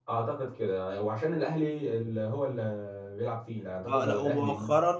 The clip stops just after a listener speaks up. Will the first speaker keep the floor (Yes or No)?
No